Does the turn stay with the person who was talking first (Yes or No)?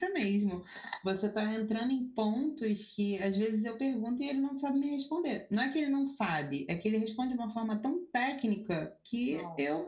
Yes